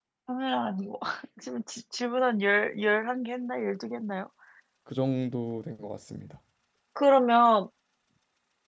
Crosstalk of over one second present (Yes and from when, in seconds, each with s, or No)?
No